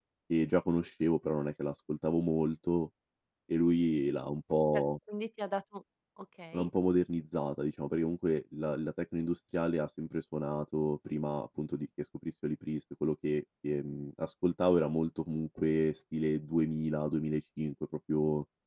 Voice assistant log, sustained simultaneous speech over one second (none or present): none